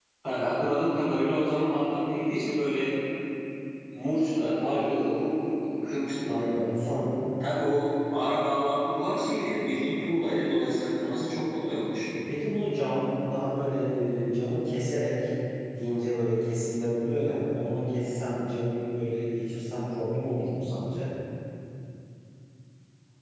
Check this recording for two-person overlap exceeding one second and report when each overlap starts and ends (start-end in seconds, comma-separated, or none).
none